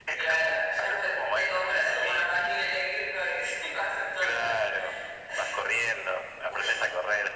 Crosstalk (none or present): present